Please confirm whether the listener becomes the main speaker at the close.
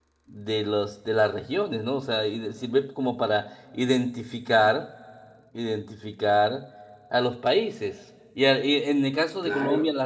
No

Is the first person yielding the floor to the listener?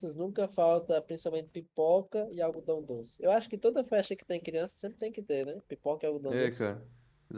Yes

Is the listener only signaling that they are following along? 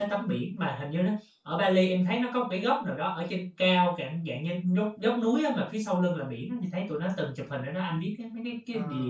No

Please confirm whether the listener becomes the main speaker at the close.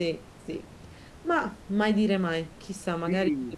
Yes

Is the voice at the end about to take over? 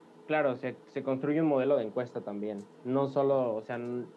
No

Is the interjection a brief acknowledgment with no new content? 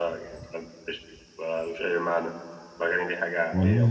No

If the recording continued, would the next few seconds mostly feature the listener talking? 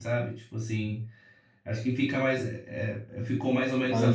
No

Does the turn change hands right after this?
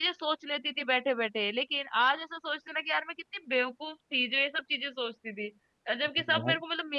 No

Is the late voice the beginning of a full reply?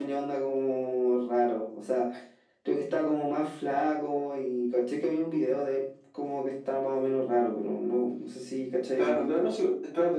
Yes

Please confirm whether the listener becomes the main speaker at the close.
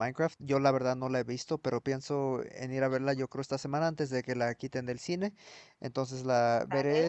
No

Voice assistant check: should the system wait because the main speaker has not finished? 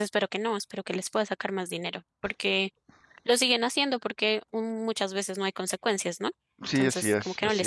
No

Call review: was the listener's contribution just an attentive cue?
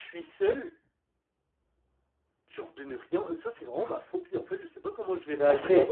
No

